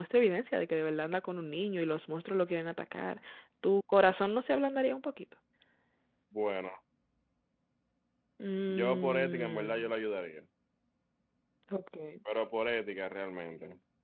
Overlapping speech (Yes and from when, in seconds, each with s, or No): Yes, from 8.7 s